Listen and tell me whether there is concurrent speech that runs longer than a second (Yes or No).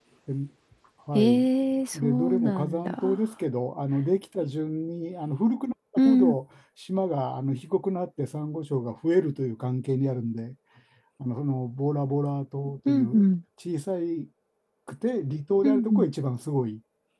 Yes